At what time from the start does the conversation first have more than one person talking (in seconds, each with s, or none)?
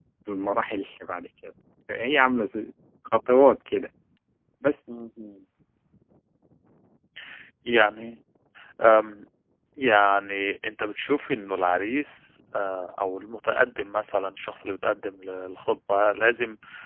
none